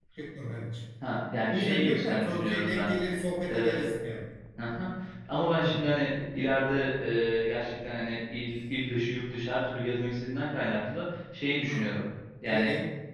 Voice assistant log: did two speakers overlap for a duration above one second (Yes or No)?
Yes